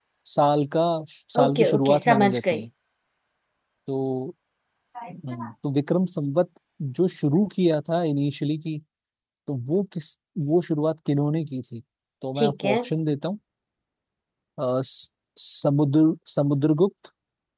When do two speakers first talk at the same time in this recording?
1 s

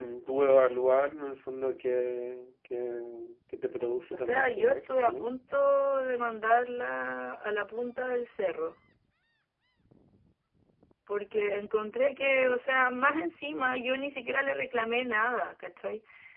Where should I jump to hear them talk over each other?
4 s

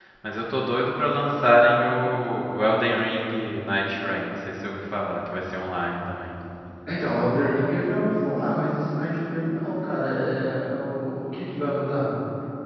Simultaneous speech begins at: none

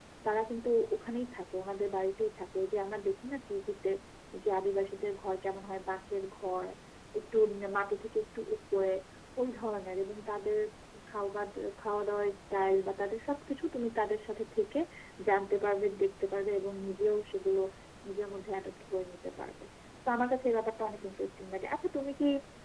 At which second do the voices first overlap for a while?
none

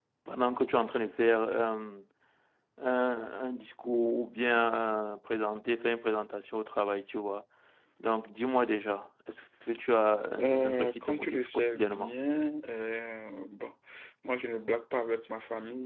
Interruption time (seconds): 10 s

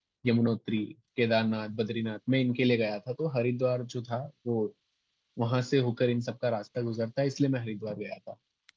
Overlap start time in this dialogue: none

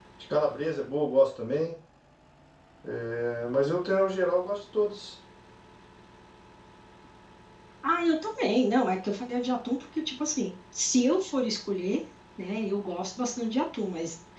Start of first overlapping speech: none

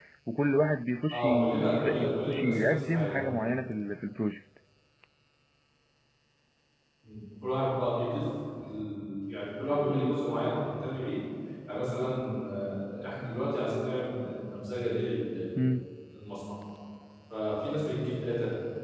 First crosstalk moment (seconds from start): 1 s

